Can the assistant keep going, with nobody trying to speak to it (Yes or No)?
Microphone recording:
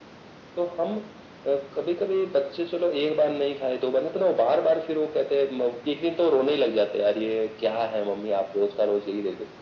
Yes